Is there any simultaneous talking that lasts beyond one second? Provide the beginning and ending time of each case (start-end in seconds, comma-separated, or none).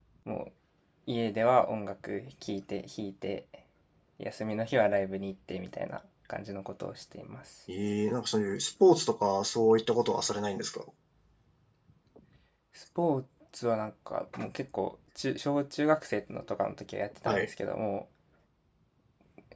none